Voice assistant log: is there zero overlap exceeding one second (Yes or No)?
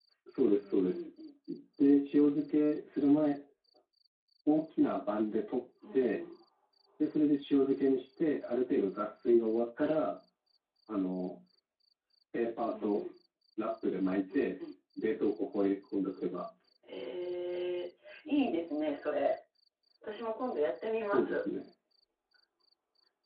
Yes